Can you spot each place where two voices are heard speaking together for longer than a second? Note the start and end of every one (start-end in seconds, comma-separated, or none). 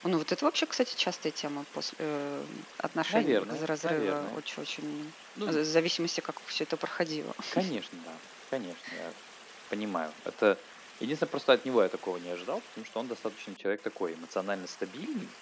3.1-4.4